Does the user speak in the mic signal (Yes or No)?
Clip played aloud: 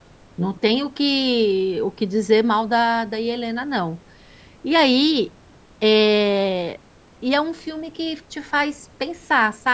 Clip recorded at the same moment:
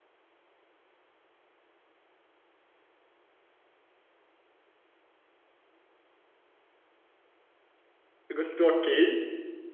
Yes